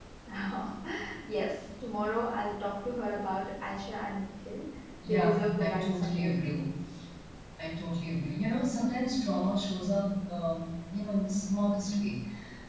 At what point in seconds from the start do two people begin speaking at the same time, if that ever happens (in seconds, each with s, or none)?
5.0 s